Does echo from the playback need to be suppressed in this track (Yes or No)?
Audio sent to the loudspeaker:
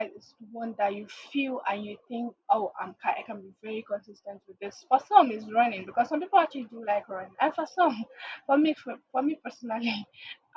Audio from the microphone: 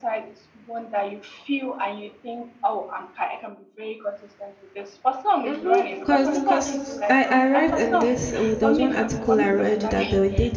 Yes